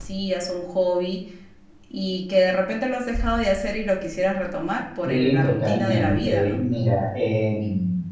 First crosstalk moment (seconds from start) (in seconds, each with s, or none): 5.0 s